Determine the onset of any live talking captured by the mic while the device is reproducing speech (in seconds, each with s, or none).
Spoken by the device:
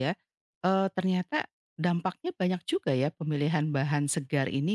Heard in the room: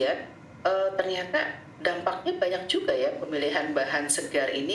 none